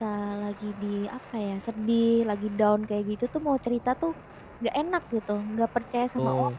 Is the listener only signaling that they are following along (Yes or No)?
No